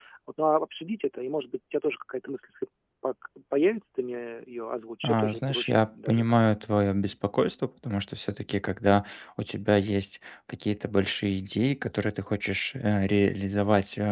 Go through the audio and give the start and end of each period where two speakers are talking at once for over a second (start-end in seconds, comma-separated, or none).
5.0-6.4